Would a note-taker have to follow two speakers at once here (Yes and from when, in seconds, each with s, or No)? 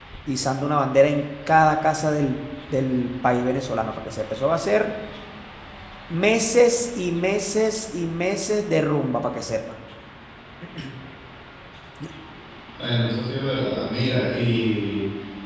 No